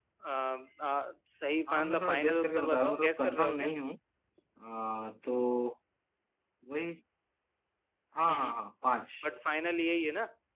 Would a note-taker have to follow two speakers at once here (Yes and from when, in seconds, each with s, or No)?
Yes, from 1.7 s